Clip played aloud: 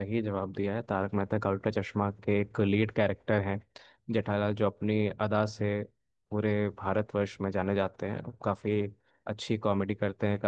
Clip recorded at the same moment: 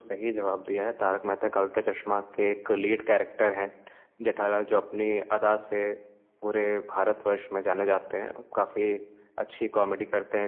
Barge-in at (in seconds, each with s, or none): none